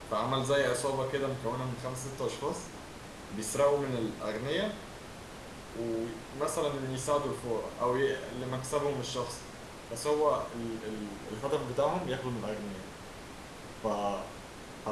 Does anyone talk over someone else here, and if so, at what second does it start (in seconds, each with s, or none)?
none